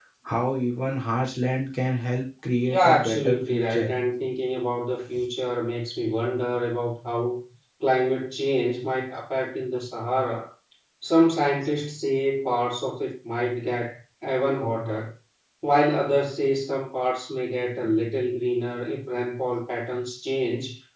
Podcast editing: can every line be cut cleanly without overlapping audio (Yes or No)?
No